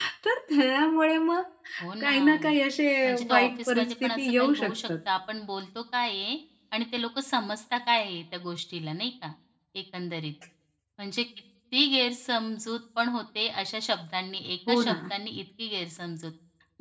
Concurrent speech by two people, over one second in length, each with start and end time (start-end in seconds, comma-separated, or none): 3.0-4.7